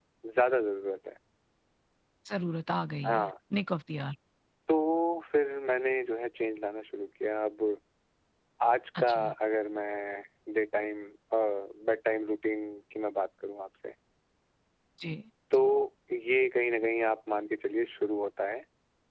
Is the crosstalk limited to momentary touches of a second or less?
Yes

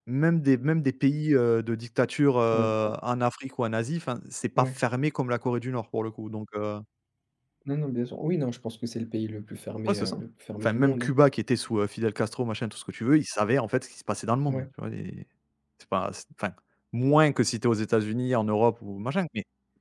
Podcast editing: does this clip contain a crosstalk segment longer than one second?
No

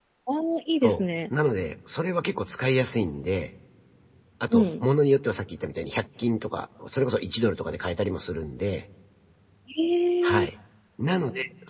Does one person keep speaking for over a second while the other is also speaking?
No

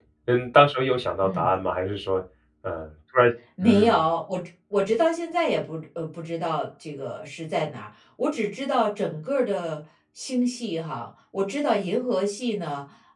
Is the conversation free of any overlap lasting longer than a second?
Yes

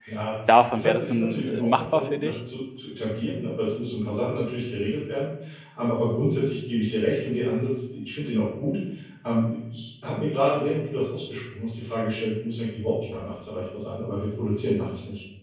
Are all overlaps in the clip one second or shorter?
No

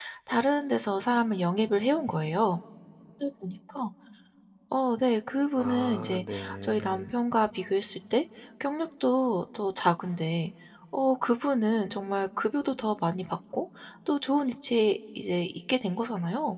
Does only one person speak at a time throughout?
No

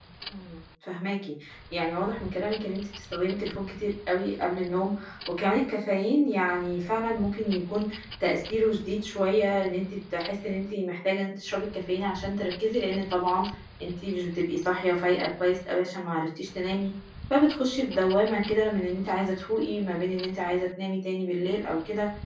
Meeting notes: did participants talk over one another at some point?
No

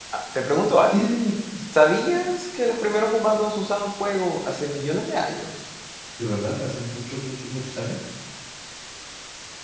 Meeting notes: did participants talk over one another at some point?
No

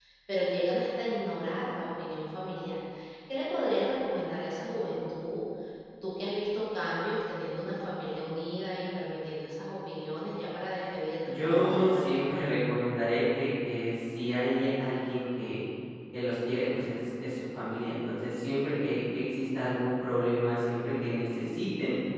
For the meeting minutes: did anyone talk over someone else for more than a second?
Yes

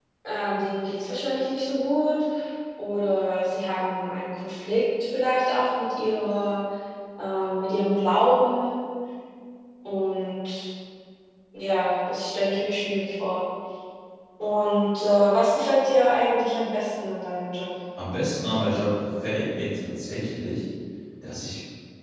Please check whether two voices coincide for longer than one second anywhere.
No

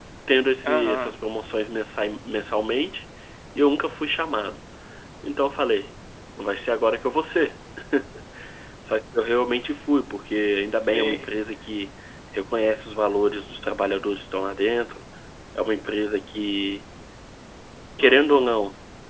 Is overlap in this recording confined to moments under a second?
Yes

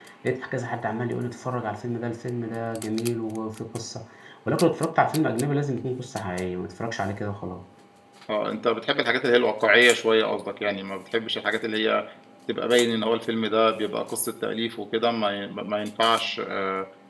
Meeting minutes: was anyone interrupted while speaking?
No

